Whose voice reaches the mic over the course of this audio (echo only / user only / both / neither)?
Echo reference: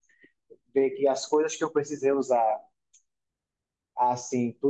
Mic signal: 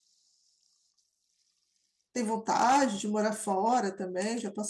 user only